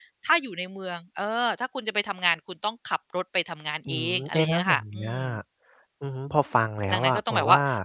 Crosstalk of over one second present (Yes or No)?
Yes